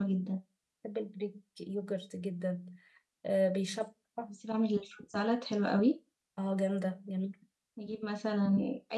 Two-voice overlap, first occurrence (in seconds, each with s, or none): none